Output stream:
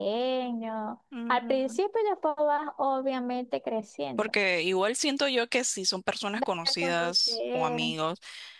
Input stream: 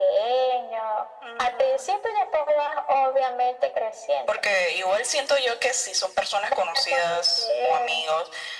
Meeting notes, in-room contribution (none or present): none